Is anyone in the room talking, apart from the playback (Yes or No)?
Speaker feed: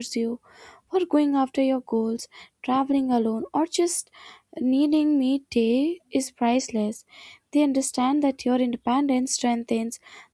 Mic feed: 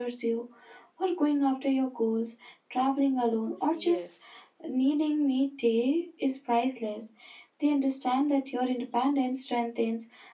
Yes